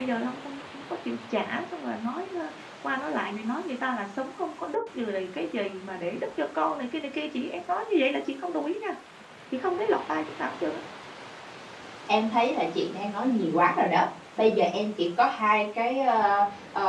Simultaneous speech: No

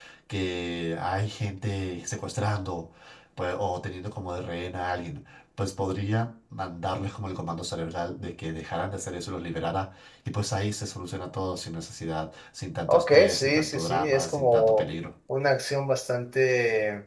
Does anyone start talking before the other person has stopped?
Yes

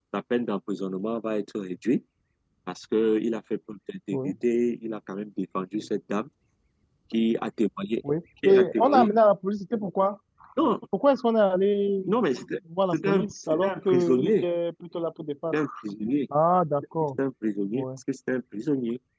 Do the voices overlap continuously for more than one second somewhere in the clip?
Yes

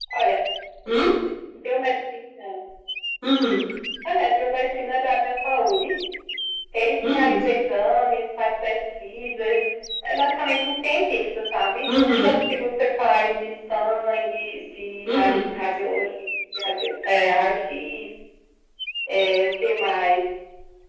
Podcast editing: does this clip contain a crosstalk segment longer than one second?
No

